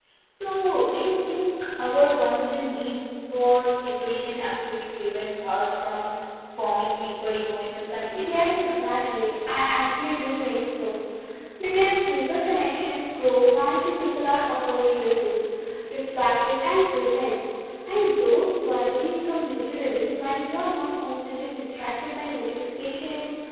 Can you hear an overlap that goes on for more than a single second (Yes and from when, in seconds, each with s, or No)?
No